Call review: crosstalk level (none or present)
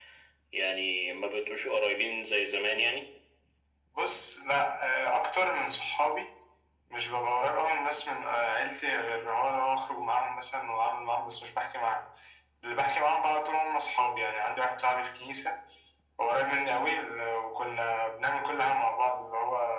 none